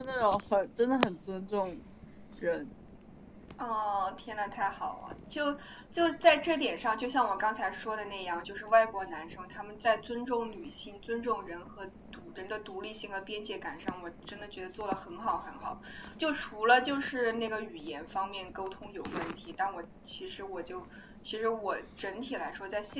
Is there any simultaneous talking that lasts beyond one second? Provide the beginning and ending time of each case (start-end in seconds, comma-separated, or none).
none